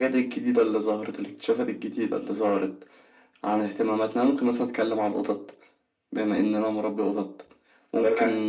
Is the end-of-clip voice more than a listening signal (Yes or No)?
No